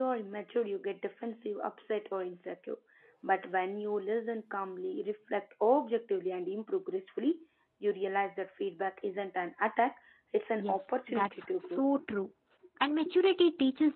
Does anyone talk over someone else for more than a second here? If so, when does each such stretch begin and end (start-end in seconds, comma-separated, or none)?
10.6-11.8